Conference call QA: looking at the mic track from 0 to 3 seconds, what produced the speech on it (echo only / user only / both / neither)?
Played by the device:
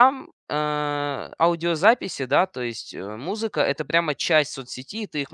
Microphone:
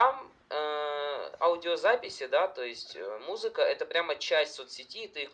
echo only